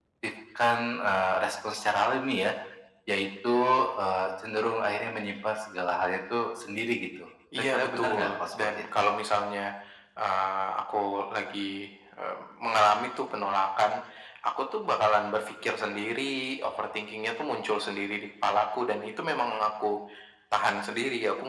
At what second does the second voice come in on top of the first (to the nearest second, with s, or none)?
8 s